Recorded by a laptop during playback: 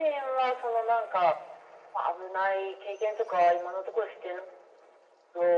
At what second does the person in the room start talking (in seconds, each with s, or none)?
none